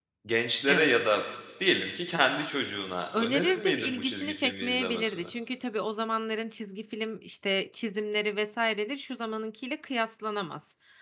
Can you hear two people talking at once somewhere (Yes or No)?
Yes